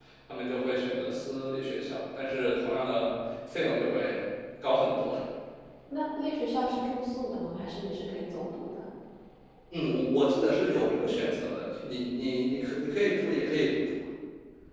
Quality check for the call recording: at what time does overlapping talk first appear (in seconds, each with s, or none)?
none